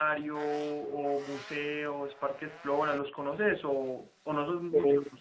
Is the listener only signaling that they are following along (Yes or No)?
Yes